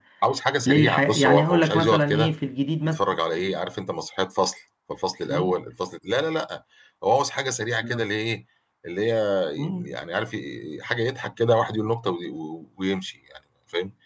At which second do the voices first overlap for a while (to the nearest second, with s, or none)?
1 s